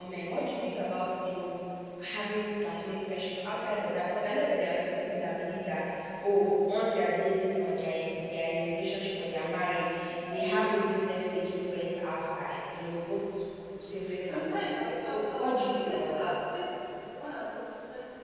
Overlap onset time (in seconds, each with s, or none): 14.3 s